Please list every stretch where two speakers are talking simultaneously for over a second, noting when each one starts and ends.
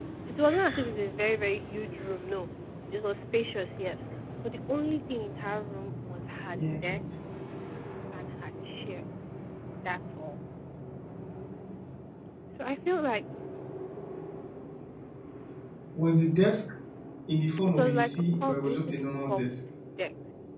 17.7-19.4

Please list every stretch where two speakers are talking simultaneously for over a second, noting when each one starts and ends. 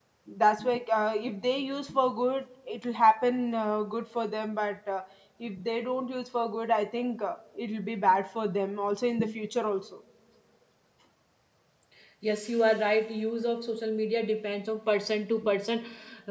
none

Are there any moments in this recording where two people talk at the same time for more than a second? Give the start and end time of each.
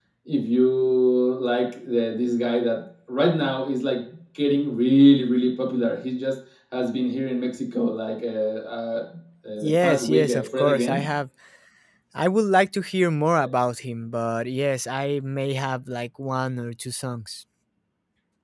9.6-11.0

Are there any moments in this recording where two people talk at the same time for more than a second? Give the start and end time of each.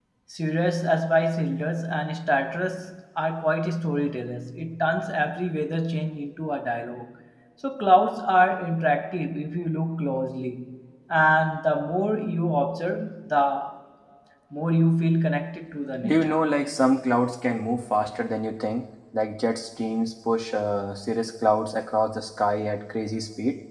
none

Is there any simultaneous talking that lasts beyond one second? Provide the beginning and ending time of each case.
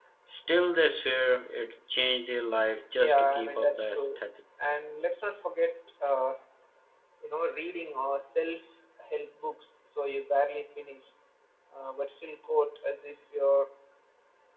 3.0-4.2

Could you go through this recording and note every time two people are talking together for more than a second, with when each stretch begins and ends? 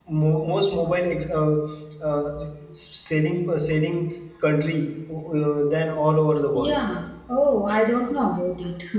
none

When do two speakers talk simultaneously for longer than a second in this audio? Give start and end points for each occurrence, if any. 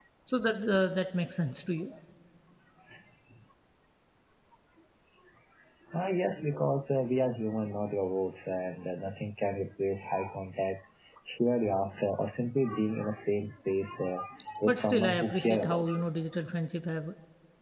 14.7-16.0

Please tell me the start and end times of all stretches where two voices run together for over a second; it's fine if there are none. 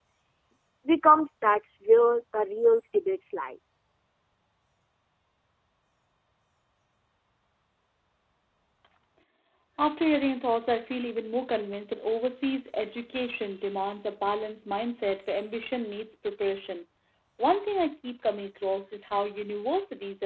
none

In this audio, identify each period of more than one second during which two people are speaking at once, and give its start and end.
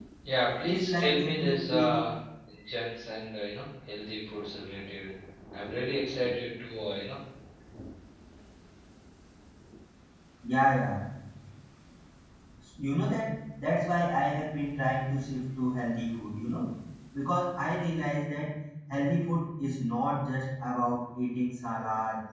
0.7-1.9

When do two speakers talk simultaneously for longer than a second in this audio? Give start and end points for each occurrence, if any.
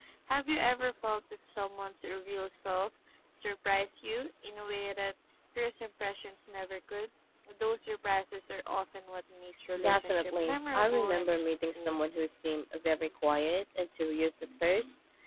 9.8-12.0

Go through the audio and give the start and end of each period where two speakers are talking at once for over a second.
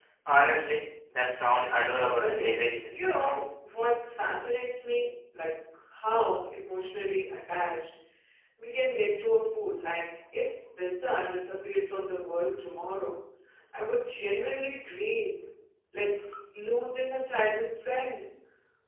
2.2-3.4

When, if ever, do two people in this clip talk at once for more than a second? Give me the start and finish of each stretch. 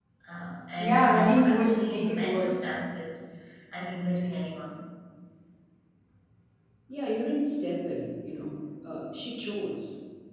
0.8-2.6

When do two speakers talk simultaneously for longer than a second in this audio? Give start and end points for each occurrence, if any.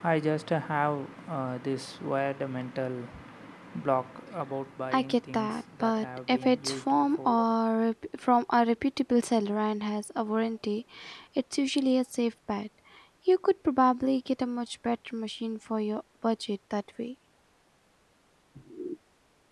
4.9-7.3

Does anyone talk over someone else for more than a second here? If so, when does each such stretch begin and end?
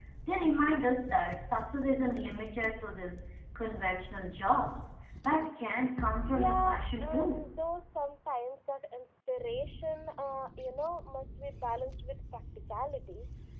6.3-7.5

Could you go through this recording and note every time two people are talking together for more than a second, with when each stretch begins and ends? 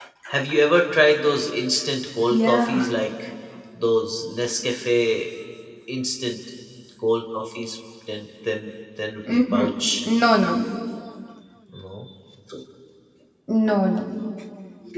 none

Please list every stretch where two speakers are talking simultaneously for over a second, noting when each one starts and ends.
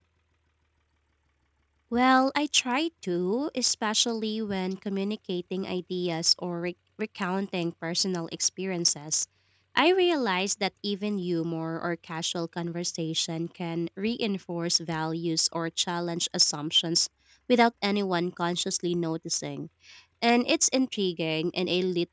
none

